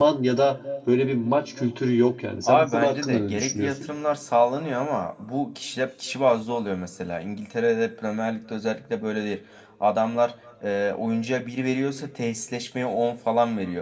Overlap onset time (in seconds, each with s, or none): 2.5 s